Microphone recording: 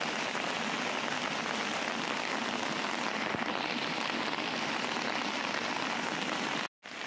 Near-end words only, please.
none

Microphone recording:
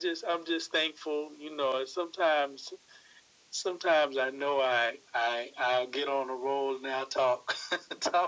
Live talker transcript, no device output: none

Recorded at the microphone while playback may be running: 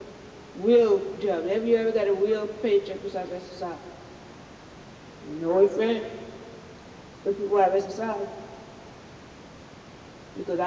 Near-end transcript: none

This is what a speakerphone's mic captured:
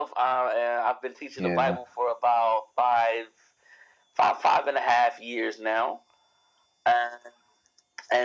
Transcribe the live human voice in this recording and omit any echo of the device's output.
Yeah.

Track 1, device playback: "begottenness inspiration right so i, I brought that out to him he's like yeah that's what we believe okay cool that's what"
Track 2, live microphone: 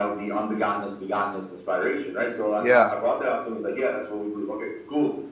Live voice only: yeah.

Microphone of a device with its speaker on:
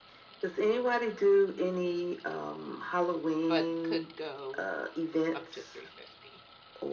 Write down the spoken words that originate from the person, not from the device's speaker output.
but could go up to 350

